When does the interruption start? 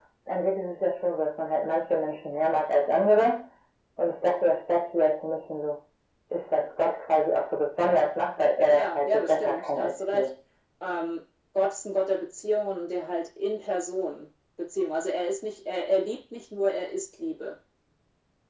9 s

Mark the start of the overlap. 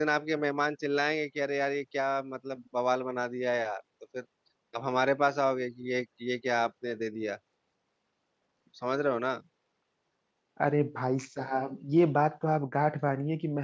none

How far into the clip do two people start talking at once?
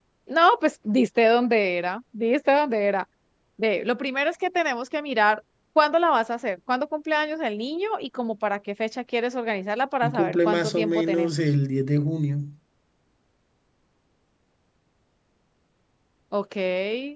10 s

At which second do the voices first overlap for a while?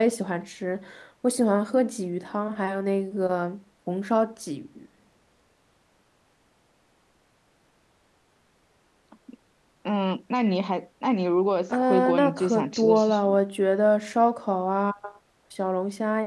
12 s

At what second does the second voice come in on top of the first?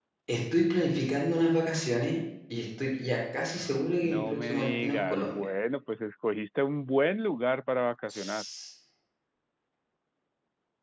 4 s

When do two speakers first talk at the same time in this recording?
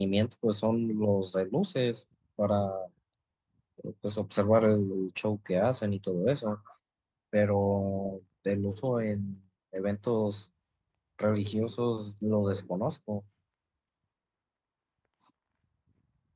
none

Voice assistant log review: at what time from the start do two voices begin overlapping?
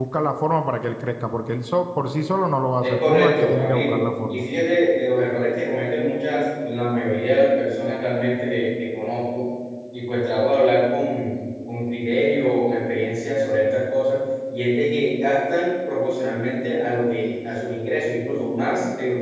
3 s

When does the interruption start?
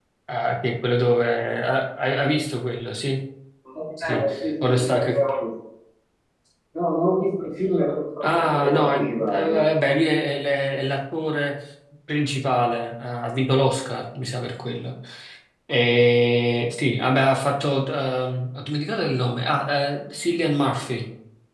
4 s

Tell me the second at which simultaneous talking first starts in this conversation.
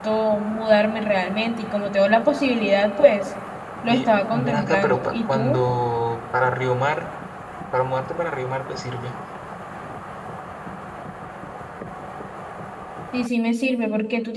4 s

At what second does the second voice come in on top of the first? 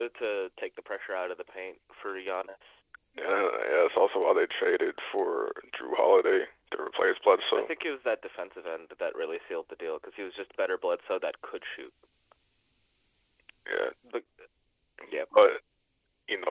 none

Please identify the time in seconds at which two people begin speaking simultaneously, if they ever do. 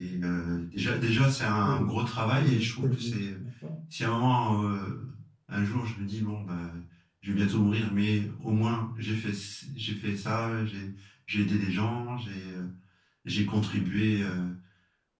2 s

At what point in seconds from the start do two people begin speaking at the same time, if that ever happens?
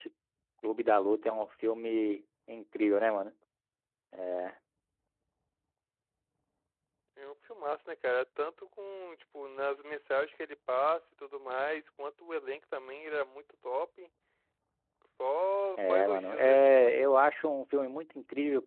16 s

